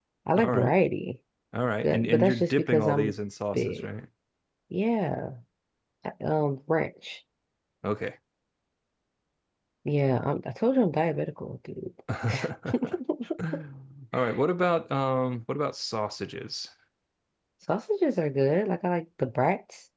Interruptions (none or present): present